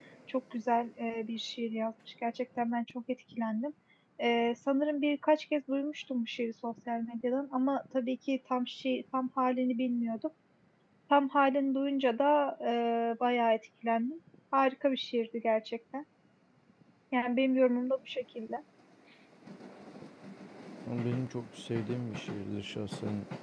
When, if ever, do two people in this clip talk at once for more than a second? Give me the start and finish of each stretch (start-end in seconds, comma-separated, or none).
none